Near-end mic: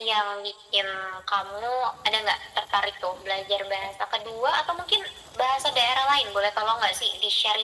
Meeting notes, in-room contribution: none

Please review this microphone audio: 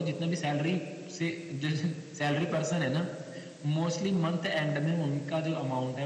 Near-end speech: none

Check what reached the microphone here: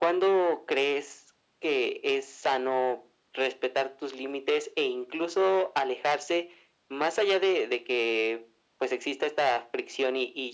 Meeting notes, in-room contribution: none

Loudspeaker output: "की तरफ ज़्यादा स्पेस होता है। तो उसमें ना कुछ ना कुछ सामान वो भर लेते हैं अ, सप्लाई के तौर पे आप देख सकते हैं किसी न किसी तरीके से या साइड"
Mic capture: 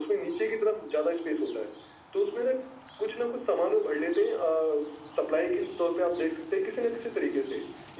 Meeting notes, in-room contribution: none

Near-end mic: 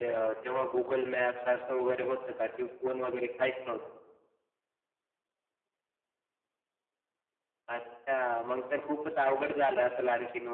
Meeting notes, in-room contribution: none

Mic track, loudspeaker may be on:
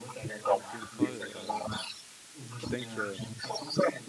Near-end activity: present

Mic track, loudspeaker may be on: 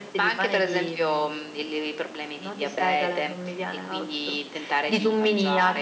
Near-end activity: none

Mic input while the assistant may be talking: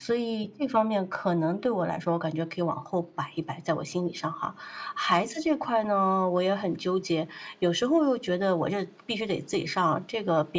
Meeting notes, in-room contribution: none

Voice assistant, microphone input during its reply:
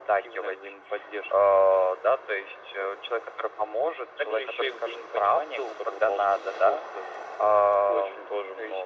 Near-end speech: none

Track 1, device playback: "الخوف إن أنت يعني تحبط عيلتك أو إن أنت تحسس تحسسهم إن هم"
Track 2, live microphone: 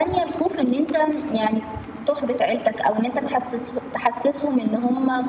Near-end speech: none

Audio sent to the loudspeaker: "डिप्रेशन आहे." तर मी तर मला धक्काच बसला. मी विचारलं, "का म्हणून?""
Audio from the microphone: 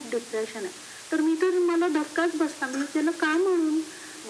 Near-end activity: none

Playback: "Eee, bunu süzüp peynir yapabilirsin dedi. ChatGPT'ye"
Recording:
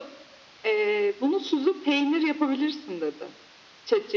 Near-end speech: none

